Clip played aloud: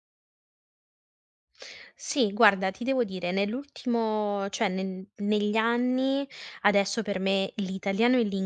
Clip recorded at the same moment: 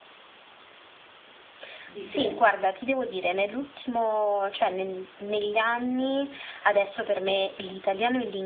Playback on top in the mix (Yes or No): Yes